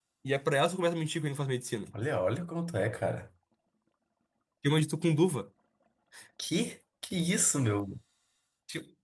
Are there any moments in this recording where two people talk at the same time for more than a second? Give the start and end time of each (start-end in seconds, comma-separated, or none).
none